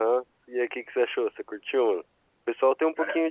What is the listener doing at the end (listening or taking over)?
listening